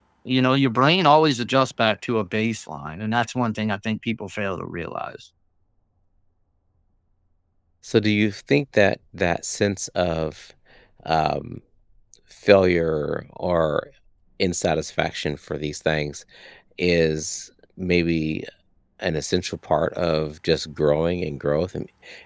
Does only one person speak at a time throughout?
Yes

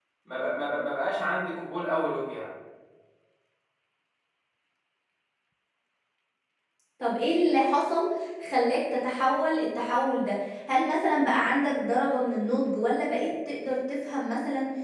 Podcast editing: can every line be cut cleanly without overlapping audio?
Yes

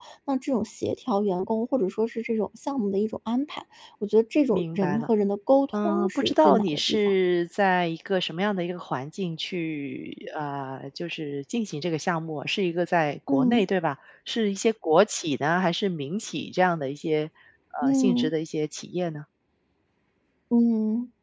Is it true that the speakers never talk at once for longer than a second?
No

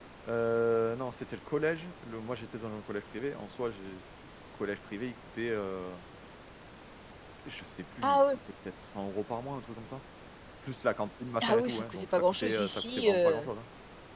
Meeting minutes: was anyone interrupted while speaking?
Yes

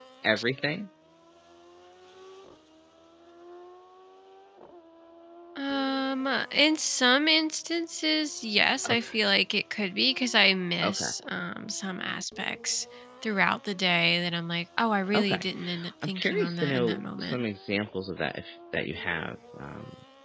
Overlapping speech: Yes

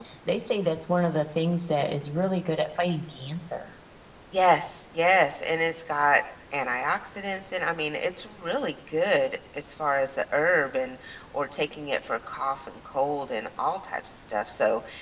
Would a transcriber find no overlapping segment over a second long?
Yes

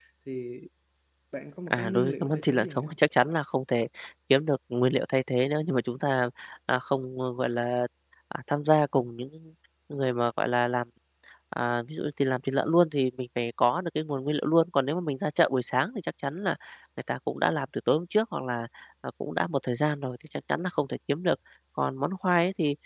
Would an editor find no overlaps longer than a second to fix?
No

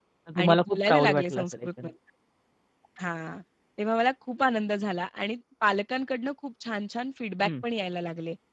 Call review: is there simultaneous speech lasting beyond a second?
Yes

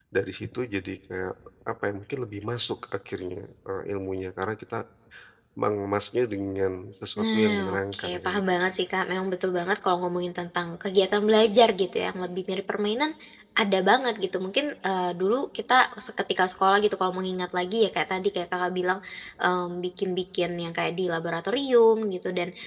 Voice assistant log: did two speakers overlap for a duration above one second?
Yes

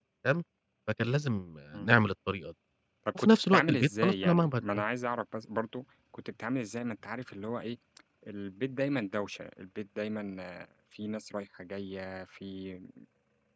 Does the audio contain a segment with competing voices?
Yes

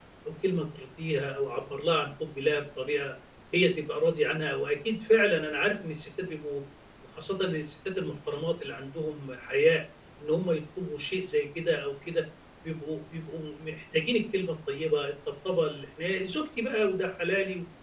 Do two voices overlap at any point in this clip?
No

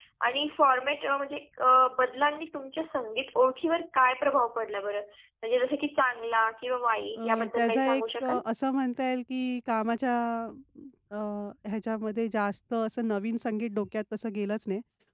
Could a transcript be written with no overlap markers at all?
No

